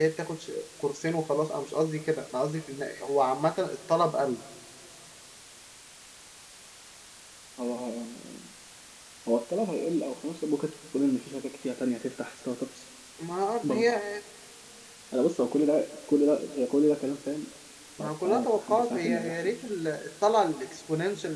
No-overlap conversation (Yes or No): No